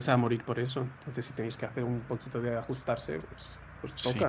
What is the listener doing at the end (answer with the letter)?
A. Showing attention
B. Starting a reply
B